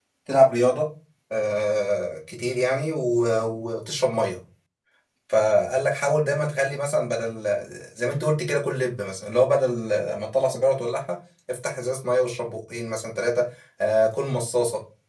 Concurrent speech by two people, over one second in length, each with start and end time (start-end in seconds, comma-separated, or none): none